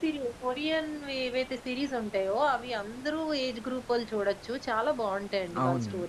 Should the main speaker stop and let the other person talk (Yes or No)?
Yes